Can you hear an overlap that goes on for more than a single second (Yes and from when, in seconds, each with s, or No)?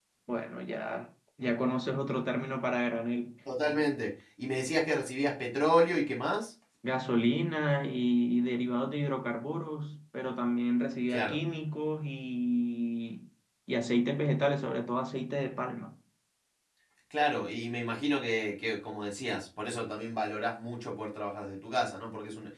No